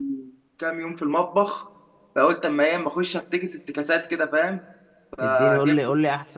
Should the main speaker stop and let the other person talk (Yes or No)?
Yes